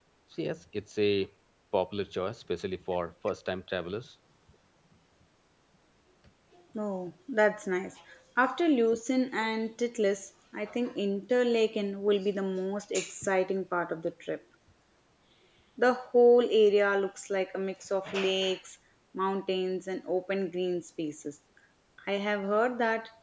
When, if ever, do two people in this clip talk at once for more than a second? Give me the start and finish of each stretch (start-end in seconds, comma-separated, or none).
none